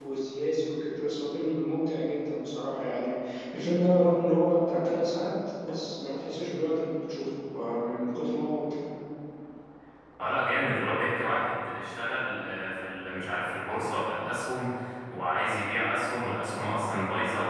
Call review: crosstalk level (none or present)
none